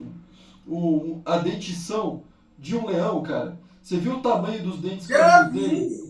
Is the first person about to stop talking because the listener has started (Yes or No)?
Yes